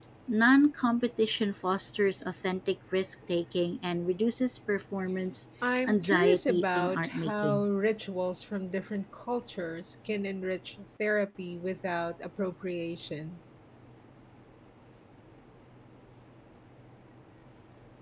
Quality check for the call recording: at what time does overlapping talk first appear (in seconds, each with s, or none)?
5.8 s